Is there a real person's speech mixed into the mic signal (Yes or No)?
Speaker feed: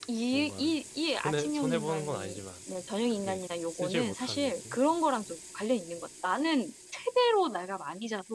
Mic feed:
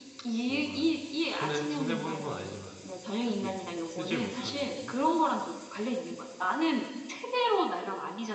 No